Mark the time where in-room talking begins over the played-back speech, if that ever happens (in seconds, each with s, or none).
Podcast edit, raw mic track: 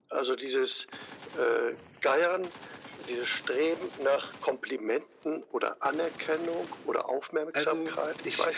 7.5 s